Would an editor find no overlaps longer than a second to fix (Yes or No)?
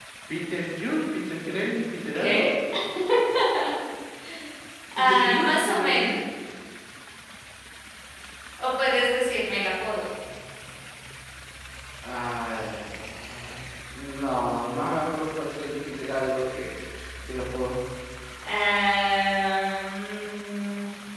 No